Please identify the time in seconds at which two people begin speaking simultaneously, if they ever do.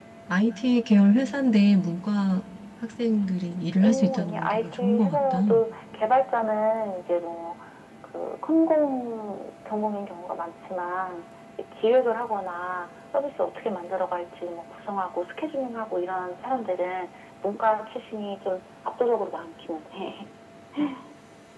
3.8 s

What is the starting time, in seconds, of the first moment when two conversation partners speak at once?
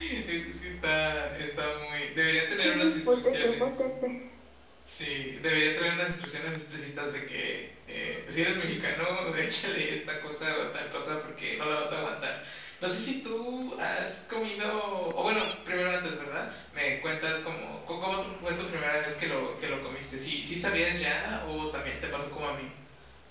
2.5 s

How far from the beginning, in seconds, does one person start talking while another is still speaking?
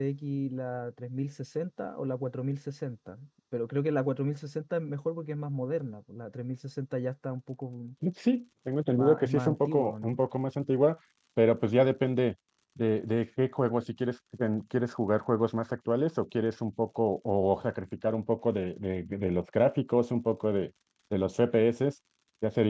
8.9 s

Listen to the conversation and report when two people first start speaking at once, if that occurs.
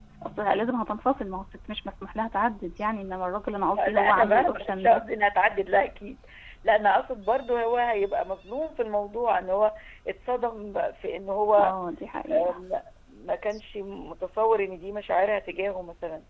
3.8 s

